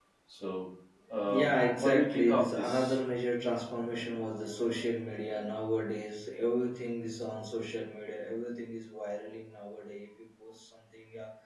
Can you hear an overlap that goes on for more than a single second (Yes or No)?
Yes